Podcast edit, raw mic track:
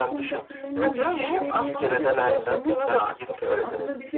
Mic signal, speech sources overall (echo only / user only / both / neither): both